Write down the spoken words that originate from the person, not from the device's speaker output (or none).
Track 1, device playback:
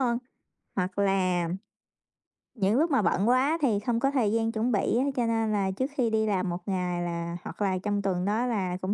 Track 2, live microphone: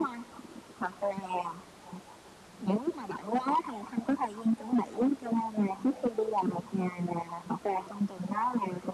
none